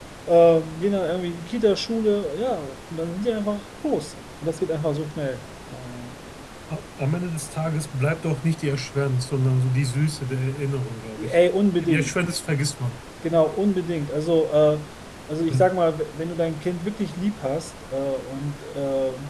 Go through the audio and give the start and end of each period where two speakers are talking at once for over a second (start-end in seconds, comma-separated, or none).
none